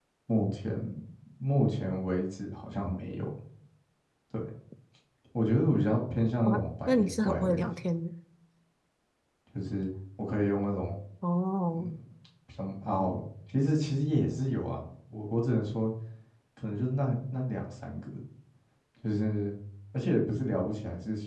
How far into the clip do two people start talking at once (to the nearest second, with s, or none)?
6 s